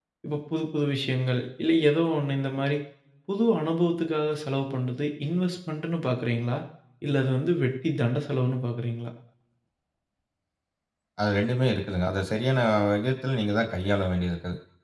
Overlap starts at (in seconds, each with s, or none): none